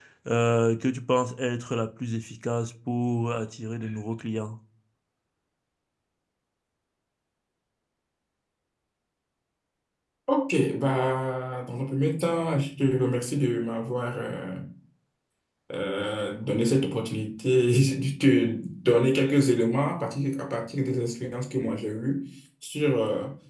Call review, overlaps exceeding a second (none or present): none